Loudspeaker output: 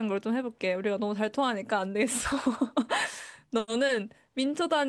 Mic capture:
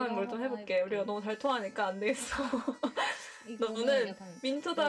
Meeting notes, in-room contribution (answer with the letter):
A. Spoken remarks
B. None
A